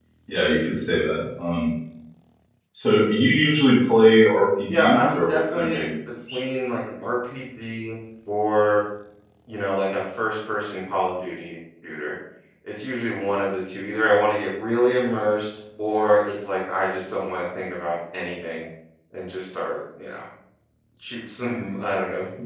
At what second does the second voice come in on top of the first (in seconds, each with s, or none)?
4.7 s